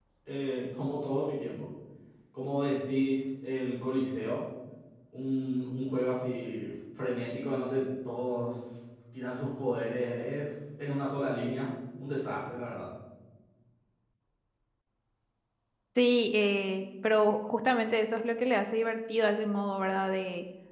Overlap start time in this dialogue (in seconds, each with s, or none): none